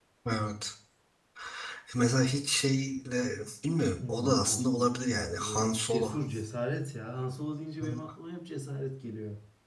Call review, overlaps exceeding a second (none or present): present